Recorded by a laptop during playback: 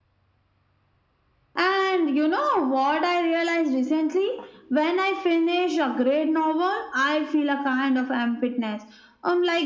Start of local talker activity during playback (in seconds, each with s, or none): none